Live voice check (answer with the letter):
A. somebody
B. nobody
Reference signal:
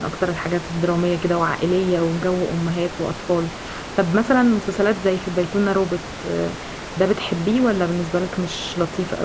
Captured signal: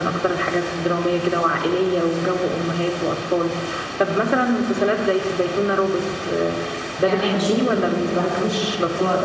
A